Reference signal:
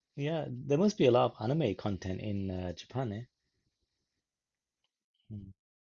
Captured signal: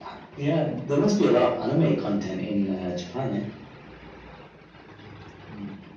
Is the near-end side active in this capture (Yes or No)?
No